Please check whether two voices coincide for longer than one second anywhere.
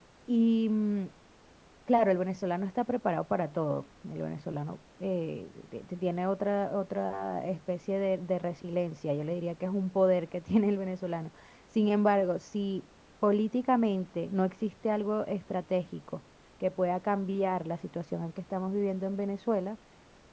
No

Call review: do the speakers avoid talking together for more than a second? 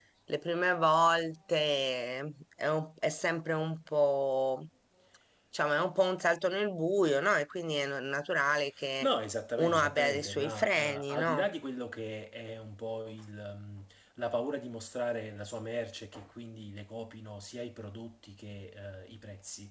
No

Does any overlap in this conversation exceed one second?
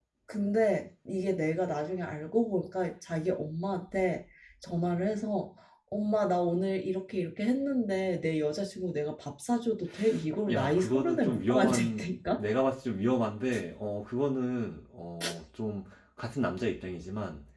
Yes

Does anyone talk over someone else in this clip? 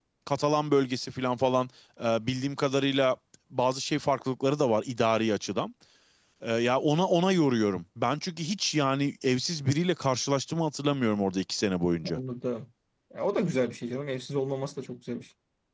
No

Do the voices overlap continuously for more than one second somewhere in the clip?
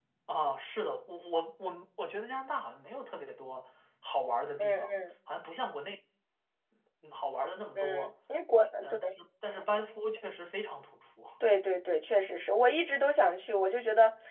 No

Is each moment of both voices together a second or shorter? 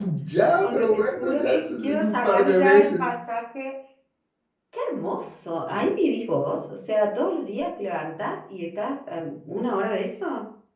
No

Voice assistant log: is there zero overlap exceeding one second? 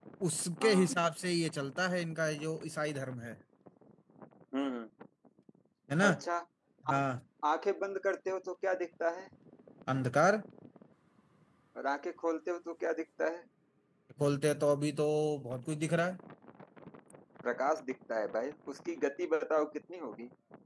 Yes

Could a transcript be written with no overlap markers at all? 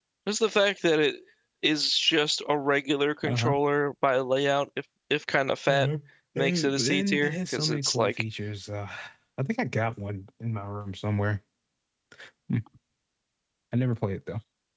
No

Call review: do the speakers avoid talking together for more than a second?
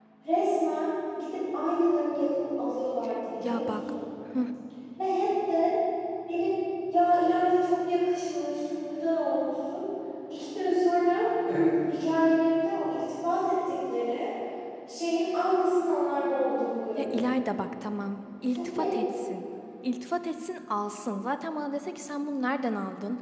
Yes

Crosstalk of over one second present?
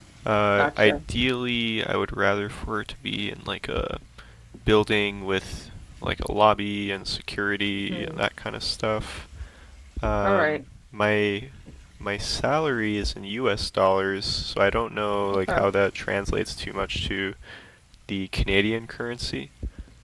No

